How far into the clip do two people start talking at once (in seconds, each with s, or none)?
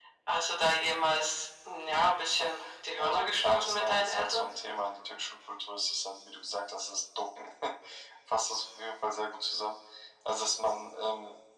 3.0 s